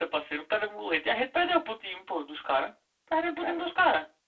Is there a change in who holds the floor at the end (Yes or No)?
No